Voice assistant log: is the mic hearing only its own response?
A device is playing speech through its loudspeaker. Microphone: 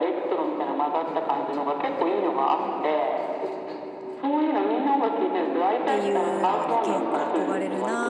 No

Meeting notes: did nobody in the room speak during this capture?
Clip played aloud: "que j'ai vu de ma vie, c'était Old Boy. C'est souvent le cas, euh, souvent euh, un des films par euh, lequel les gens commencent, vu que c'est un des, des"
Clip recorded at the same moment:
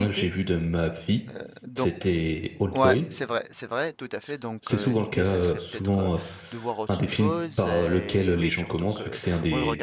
No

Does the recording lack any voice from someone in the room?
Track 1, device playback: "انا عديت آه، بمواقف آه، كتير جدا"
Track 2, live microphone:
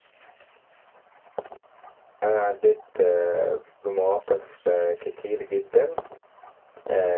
Yes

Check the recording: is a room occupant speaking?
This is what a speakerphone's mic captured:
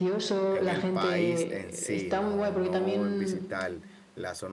Yes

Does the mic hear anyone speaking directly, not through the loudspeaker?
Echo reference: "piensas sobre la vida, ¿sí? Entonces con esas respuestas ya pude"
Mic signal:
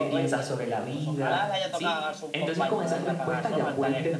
Yes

